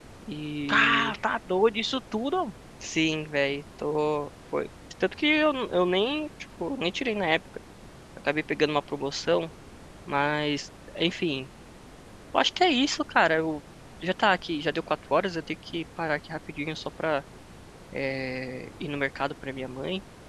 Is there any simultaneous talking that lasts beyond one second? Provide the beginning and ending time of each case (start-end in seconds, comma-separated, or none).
none